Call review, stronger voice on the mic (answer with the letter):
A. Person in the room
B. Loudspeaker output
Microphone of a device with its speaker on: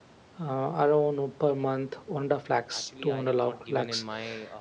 B